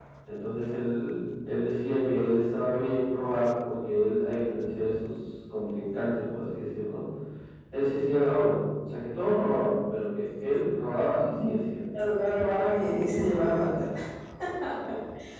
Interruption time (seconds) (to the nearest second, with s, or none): 12 s